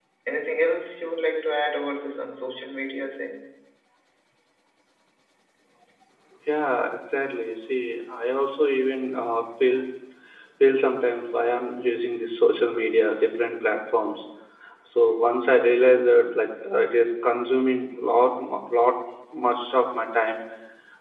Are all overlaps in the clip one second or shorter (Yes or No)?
Yes